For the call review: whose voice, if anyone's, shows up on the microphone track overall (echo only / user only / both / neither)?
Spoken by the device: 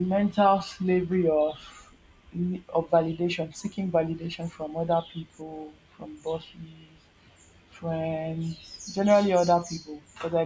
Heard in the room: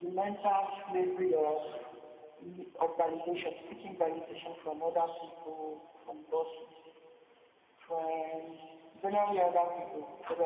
echo only